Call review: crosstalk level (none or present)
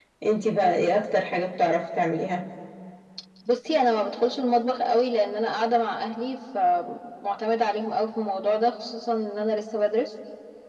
none